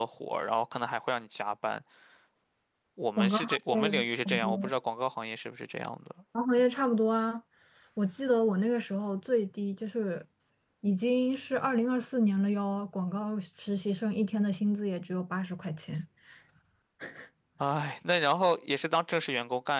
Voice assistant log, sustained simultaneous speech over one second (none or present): present